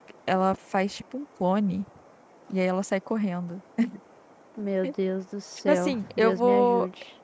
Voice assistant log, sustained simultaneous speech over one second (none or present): present